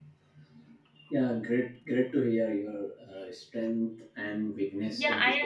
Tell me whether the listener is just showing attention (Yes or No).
No